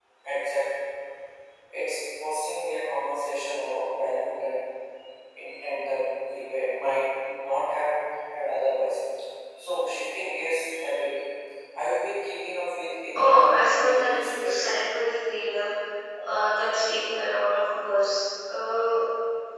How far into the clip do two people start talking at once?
13 s

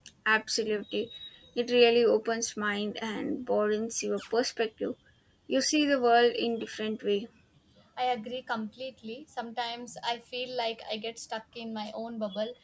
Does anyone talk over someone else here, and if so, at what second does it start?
none

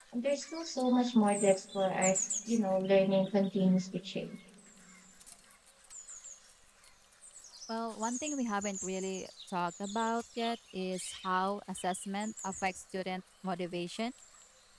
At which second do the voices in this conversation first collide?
none

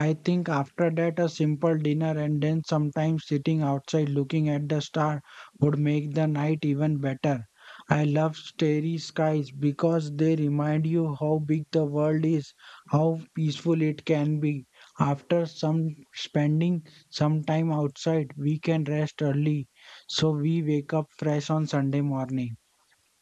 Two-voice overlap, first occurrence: none

